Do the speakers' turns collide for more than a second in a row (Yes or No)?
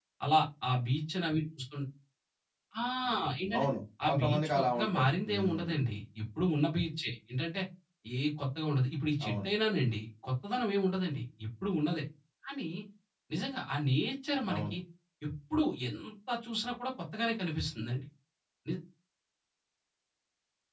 Yes